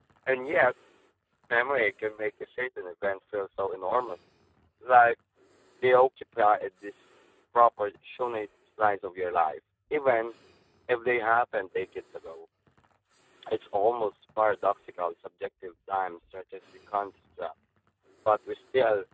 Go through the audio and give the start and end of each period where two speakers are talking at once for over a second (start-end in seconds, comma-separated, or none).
none